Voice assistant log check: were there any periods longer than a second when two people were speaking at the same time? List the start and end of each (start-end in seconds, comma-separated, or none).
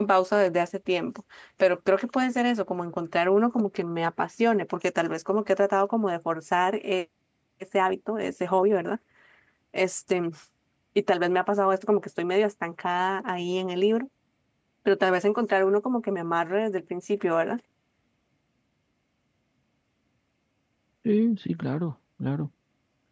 none